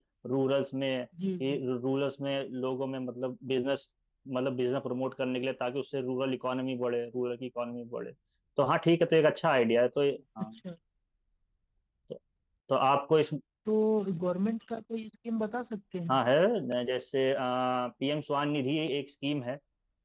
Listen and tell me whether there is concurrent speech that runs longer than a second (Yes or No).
No